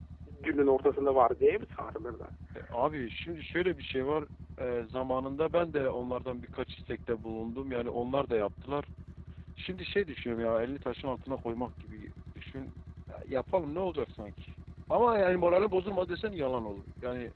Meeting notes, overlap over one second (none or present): none